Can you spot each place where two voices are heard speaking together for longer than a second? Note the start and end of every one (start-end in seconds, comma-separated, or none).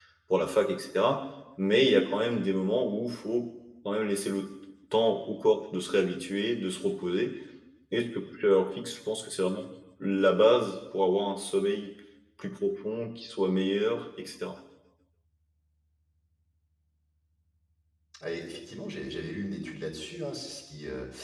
none